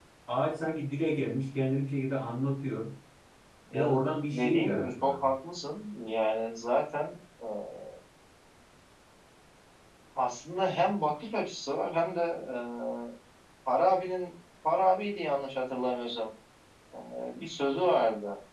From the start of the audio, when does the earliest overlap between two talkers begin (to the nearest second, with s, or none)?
4 s